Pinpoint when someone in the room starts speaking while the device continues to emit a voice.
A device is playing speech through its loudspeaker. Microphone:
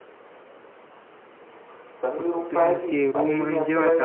2 s

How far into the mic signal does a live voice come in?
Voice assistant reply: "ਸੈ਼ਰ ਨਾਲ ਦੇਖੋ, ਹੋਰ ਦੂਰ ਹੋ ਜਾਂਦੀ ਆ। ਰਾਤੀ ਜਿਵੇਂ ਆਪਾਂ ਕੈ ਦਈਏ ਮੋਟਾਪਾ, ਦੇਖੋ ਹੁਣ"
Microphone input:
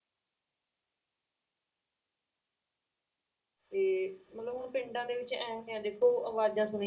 4 s

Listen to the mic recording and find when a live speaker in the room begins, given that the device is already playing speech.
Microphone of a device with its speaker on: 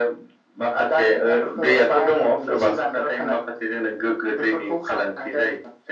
none

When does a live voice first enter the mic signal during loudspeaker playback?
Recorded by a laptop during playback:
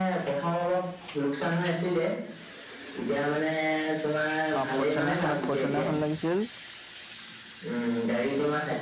5 s

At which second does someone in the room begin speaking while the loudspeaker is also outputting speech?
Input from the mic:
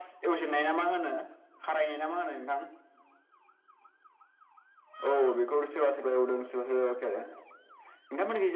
none

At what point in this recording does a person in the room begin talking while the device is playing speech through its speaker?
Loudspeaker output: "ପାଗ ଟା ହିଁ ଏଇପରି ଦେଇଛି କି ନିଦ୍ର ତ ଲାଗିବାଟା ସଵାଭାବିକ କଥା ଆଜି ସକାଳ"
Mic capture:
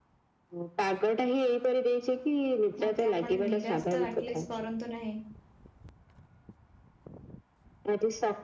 3 s

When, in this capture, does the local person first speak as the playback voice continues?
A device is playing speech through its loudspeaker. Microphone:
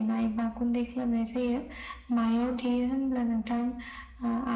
none

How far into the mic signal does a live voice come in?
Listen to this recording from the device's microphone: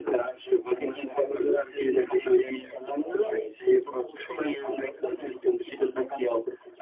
none

